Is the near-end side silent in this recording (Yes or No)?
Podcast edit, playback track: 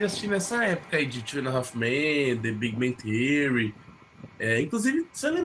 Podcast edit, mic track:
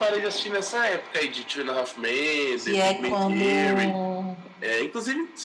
No